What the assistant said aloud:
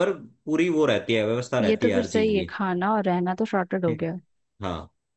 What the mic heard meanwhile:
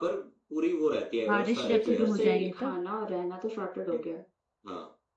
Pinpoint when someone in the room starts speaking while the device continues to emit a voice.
1.3 s

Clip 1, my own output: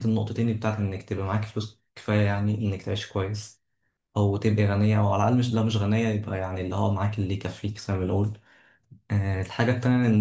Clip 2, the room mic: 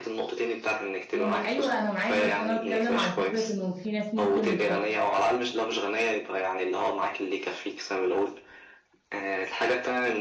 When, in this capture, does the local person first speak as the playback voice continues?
1.1 s

